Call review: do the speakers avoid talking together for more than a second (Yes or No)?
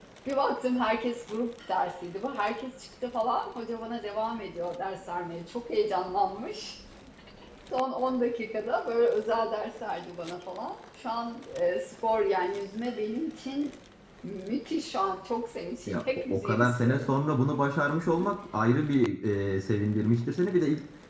No